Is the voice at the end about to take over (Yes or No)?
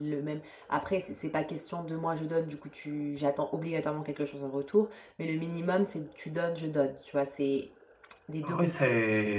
Yes